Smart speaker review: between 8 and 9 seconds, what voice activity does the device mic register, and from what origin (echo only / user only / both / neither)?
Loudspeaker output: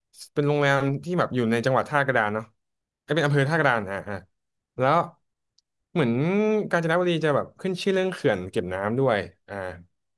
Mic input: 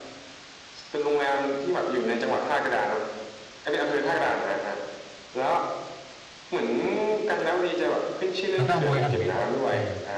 both